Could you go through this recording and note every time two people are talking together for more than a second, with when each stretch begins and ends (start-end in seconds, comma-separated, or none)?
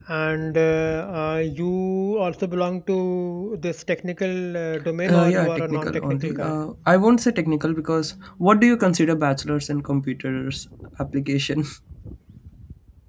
5.1-6.6